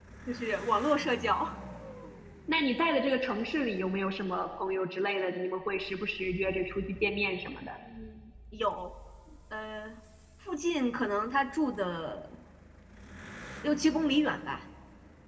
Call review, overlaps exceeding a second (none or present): none